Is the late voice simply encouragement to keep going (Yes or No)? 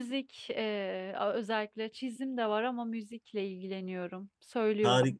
No